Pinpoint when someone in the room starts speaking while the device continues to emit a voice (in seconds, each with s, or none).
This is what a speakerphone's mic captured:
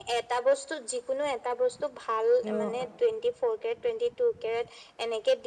2.4 s